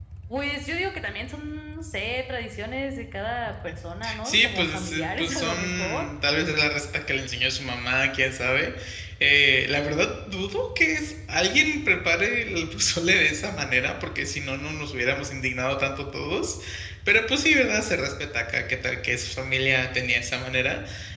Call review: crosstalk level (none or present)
present